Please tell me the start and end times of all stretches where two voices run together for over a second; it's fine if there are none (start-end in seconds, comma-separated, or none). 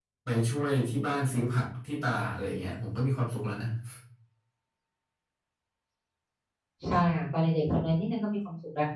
none